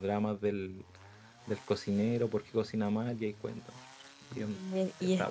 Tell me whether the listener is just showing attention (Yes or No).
No